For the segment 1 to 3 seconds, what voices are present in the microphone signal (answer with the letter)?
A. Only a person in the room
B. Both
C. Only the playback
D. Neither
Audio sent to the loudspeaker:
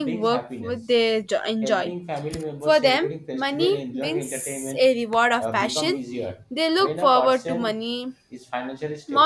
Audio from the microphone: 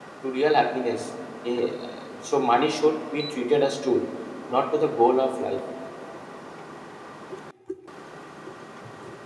A